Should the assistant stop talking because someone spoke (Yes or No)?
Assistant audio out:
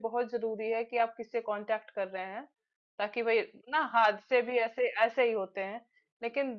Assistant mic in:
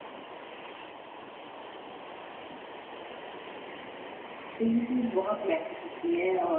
Yes